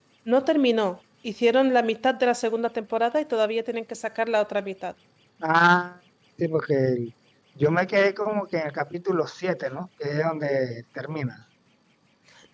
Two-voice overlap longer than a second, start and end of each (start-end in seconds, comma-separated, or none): none